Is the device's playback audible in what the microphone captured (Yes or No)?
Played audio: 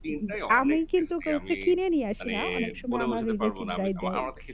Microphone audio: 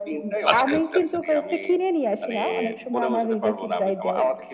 Yes